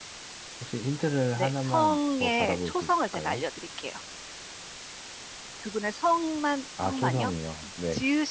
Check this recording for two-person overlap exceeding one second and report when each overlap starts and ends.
1.4-3.4

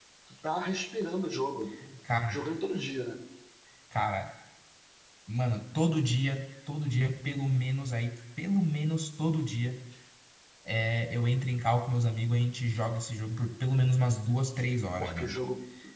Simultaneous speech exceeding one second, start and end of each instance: none

